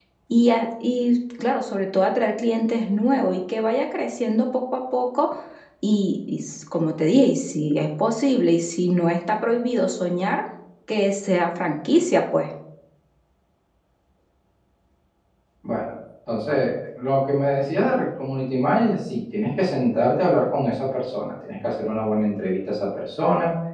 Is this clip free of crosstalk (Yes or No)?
Yes